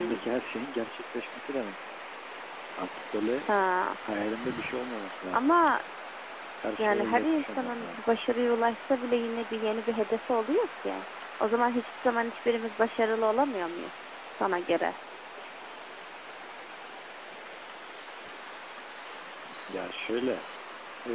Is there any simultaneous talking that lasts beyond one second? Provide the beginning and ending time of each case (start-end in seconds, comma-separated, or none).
6.8-8.0